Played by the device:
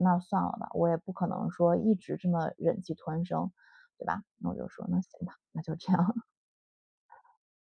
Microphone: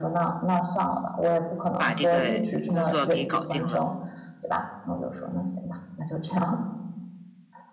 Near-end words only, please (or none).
把这个工作给搞定了，